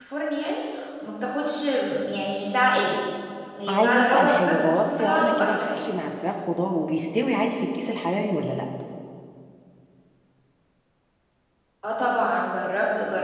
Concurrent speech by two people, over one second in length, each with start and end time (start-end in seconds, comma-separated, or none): 3.7-5.8